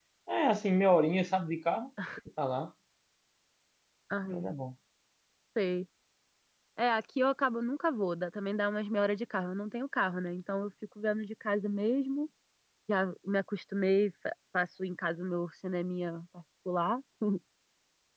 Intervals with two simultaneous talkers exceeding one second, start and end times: none

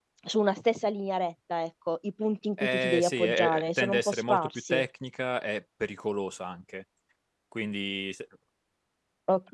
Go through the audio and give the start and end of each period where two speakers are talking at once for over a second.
2.6-4.8

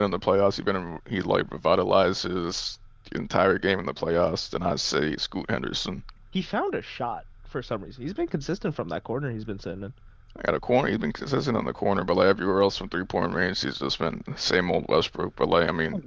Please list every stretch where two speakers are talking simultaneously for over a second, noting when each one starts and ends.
none

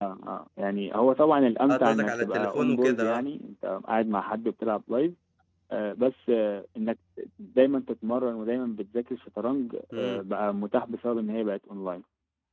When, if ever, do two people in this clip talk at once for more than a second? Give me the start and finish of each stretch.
1.7-3.2

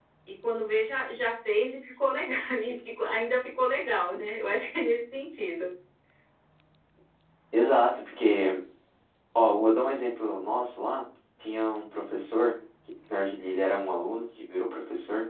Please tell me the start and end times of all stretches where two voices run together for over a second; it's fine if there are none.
none

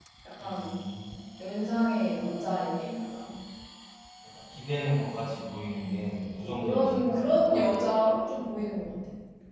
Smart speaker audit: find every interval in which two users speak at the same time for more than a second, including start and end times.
6.4-7.7

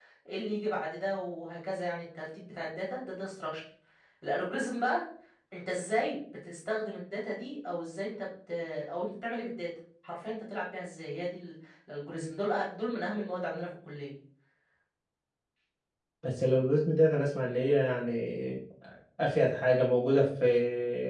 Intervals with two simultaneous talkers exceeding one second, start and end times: none

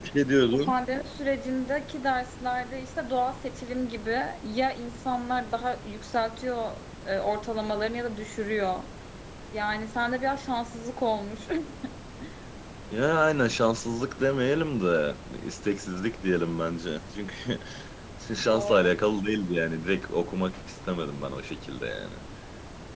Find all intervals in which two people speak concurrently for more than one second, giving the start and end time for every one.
none

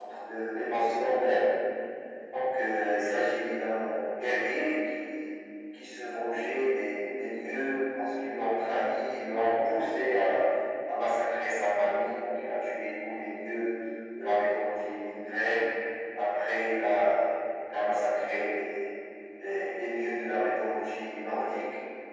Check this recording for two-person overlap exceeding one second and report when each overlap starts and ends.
none

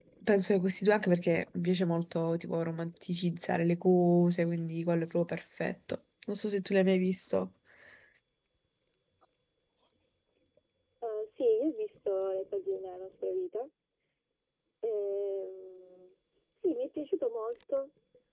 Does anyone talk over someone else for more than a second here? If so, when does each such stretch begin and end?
none

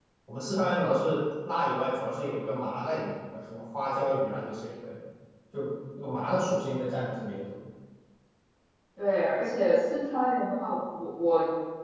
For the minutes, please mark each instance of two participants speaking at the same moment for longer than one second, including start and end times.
none

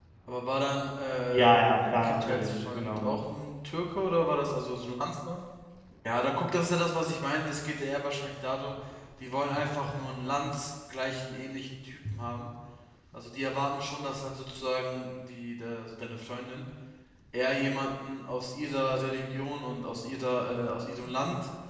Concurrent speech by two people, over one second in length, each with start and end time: 1.3-3.1

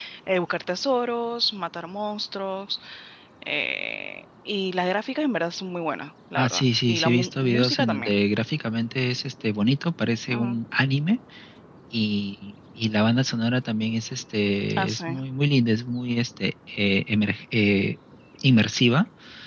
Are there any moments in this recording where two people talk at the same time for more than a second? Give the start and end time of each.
6.4-8.1

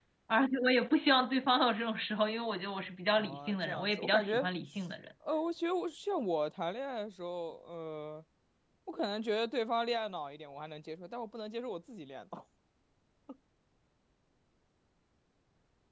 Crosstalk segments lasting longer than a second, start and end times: 3.1-4.3

